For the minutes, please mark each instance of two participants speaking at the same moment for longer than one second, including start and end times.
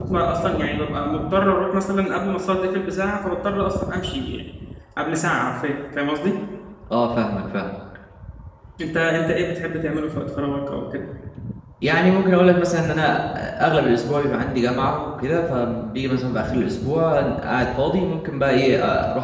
none

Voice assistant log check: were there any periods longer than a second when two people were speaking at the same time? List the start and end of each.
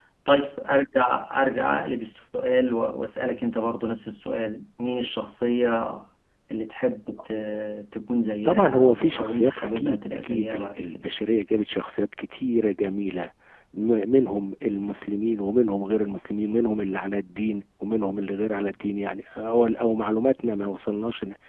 8.4-11.1

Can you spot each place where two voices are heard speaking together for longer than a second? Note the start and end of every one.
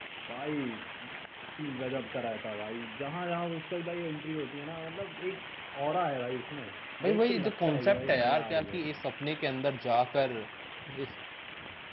7.0-8.8

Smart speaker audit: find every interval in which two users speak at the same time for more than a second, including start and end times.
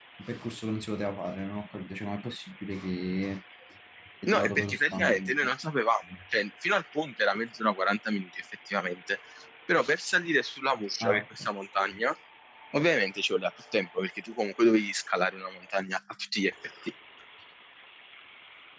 4.3-5.5

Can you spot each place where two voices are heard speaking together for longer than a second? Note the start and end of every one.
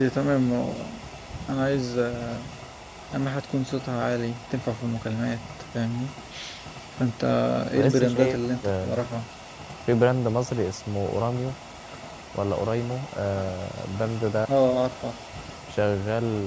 7.8-9.0

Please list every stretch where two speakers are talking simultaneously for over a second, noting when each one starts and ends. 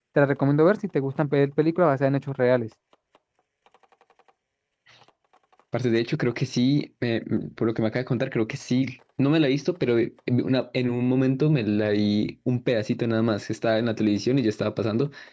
none

